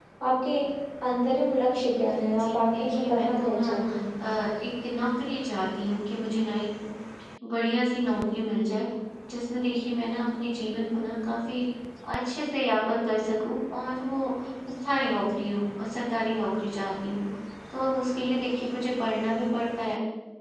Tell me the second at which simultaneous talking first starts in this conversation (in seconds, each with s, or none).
2.2 s